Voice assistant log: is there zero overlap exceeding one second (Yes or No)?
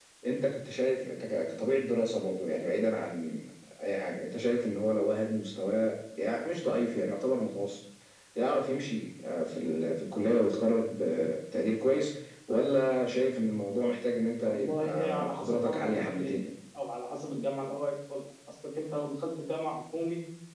No